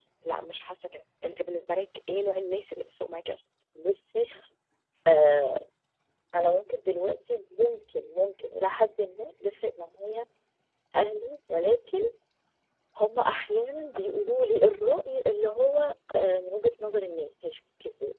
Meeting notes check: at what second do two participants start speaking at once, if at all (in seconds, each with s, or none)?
none